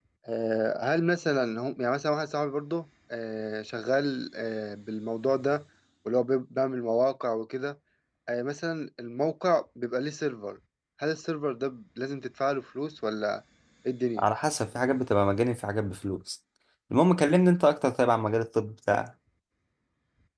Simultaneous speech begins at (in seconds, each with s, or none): none